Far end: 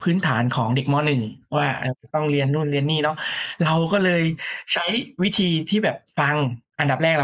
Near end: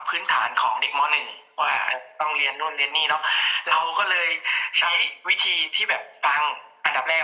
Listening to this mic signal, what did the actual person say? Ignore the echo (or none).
none